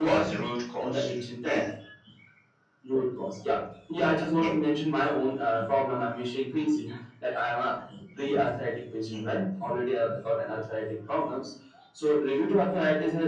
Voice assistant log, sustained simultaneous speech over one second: none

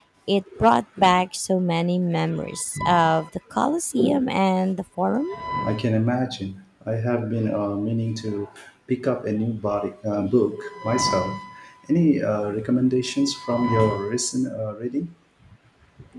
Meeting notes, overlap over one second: none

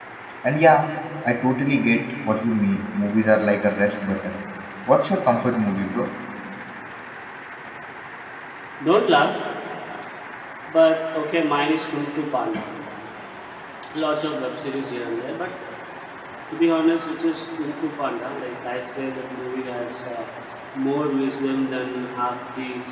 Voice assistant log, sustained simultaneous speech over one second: none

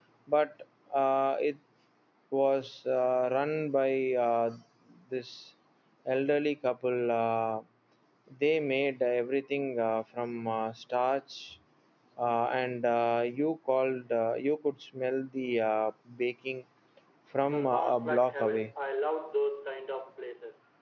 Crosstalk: present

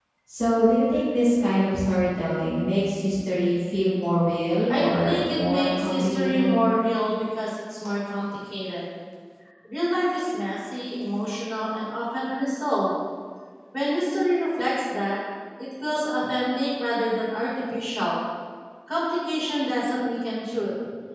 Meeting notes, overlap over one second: present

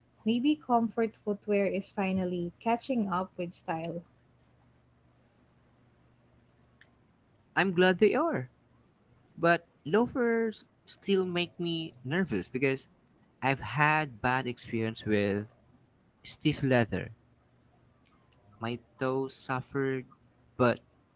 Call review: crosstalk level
none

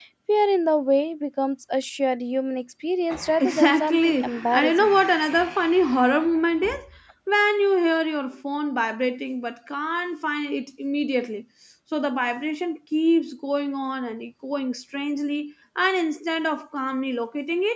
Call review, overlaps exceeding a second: present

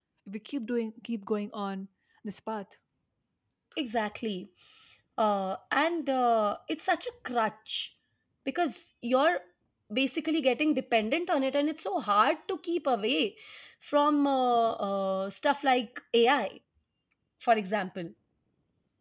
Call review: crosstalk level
none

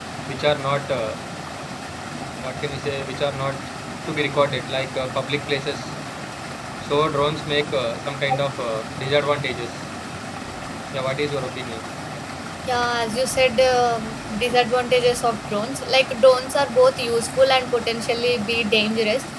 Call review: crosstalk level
none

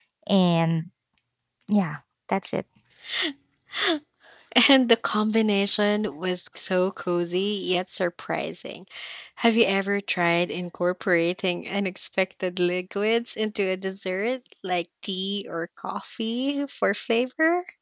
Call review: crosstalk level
none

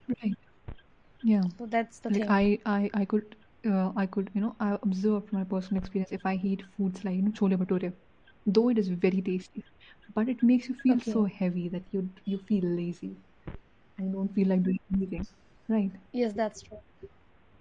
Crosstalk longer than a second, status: none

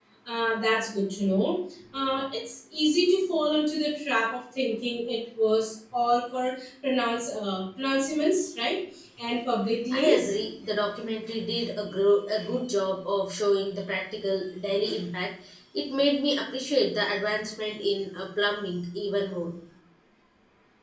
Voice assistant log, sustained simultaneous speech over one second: none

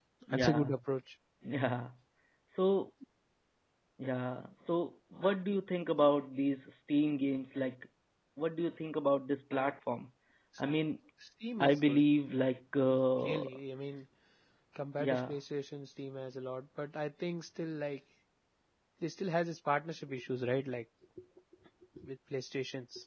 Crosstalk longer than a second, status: none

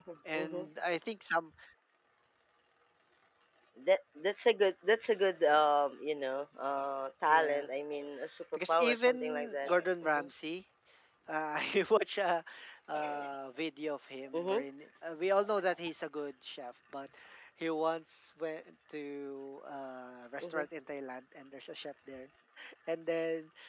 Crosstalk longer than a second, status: present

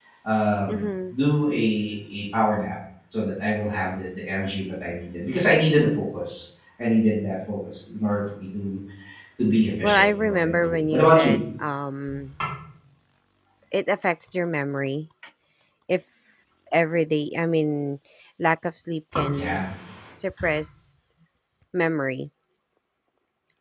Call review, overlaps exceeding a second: present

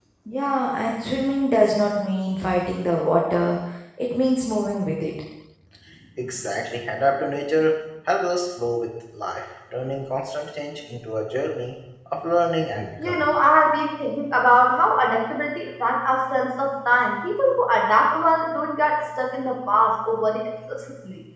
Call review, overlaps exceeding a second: none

